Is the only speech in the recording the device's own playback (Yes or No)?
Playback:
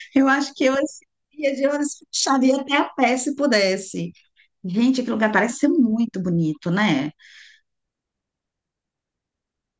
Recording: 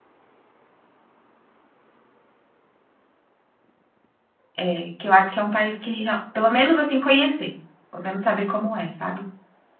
No